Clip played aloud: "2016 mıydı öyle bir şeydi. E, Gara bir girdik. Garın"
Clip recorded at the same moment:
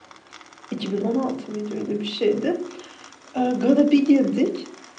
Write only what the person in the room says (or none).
none